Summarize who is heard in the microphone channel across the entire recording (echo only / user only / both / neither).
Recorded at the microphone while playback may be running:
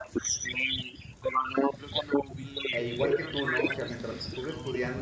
both